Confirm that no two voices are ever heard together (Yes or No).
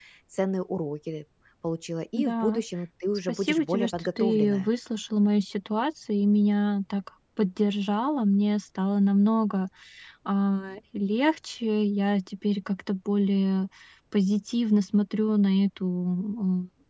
No